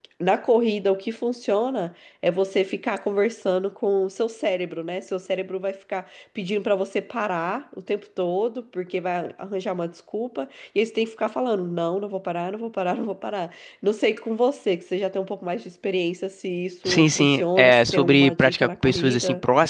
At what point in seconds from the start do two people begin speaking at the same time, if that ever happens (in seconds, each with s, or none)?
16.8 s